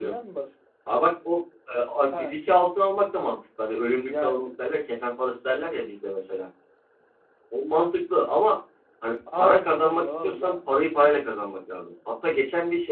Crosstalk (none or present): present